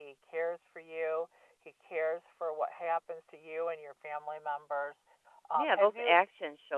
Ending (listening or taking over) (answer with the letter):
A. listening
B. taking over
B